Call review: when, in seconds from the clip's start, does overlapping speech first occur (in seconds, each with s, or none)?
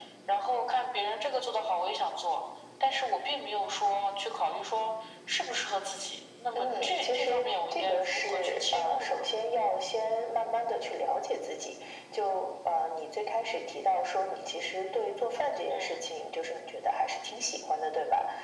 6.5 s